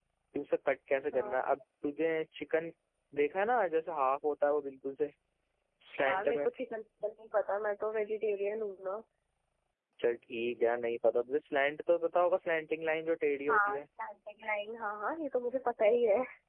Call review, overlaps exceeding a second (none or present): none